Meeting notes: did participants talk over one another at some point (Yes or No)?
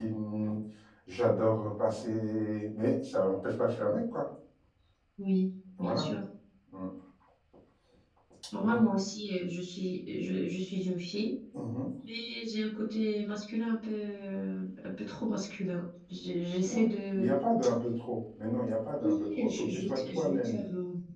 Yes